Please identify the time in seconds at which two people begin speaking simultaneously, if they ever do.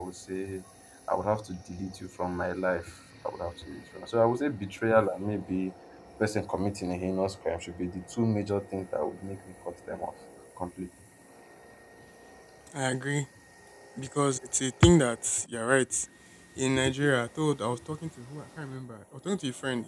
none

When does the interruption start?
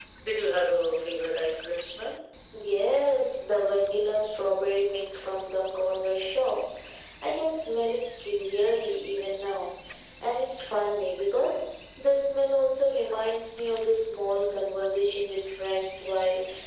none

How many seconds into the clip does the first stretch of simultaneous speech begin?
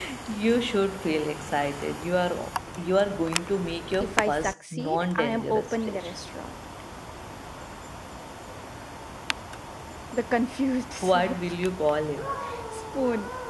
4.0 s

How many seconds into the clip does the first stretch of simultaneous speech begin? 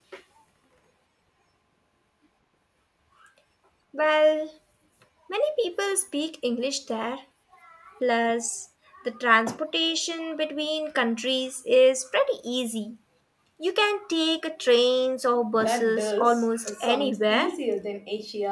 15.6 s

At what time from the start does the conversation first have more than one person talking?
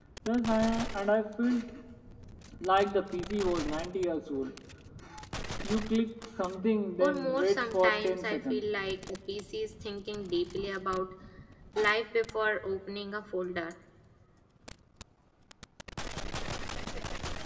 7.0 s

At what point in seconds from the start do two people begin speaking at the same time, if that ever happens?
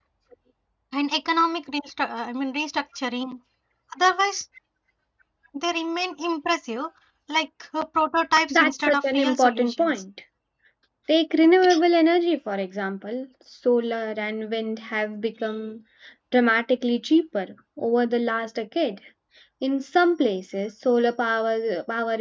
8.5 s

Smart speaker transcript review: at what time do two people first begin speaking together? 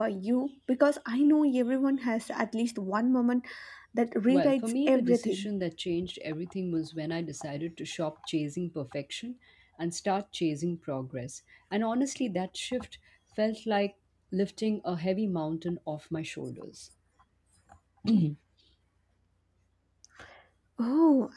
4.3 s

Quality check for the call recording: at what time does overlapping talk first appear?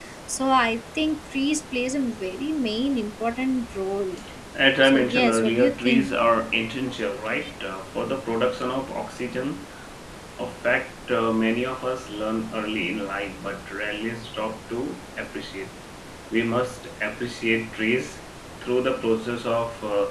4.8 s

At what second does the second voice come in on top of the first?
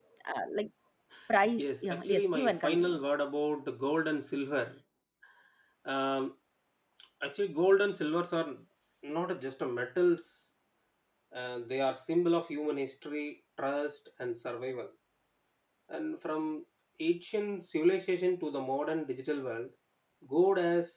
1.6 s

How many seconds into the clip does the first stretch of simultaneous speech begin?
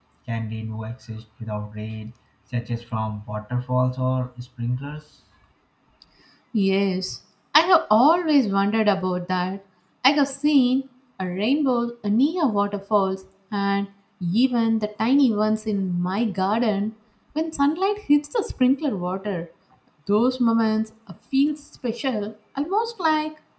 none

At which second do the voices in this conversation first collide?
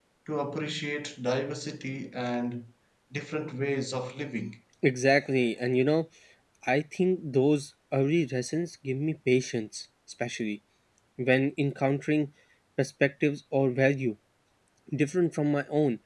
none

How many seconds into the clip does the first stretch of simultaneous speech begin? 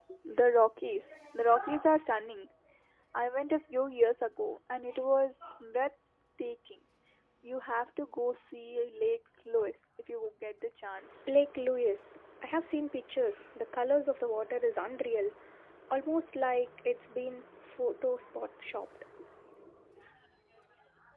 none

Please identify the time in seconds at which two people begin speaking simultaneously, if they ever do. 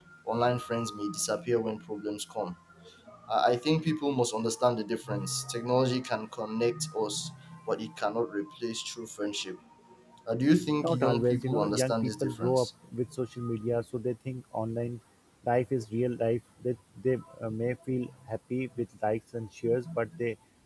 10.8 s

